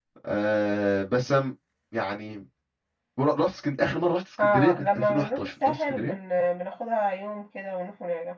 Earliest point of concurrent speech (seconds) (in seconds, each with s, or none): 4.4 s